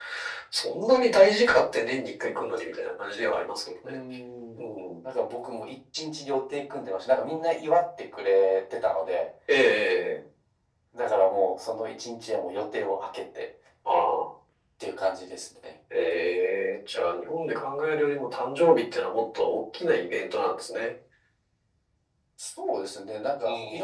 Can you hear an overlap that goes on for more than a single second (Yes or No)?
No